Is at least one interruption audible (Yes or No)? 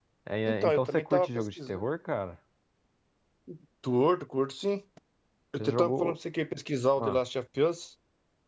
Yes